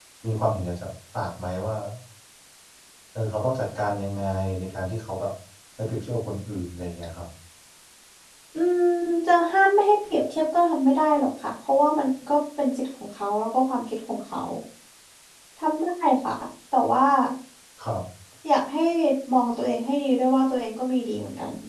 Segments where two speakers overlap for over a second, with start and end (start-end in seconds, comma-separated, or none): none